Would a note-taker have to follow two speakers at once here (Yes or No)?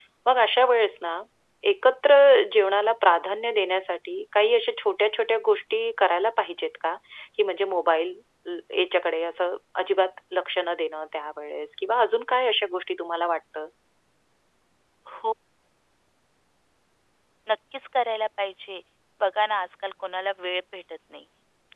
No